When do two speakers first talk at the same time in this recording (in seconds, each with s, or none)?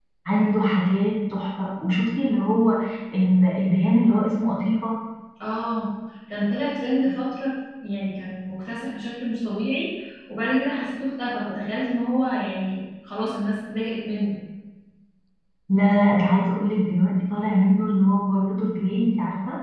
none